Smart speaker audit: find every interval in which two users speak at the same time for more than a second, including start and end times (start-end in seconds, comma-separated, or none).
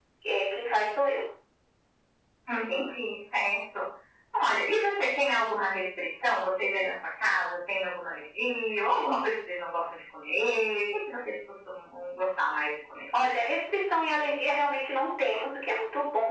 none